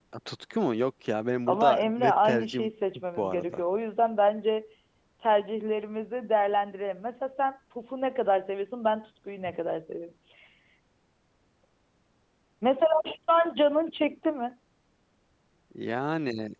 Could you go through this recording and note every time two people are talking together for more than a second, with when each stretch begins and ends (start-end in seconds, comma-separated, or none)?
1.5-2.7